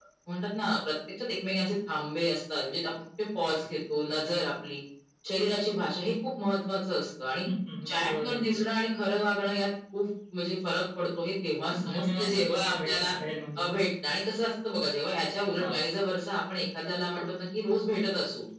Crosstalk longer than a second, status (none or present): present